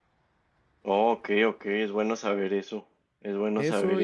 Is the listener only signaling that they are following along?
No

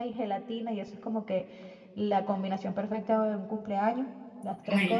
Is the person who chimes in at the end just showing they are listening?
Yes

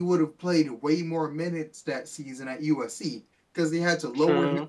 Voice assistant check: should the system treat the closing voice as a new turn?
No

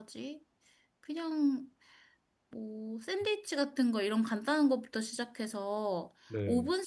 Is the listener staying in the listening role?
Yes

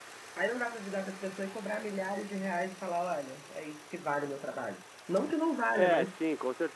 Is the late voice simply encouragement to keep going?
No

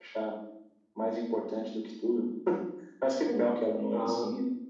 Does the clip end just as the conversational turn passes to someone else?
No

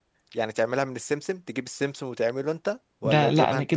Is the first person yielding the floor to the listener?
Yes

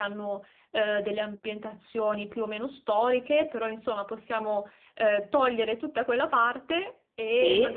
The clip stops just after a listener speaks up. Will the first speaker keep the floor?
Yes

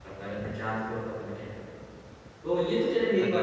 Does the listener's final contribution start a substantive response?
No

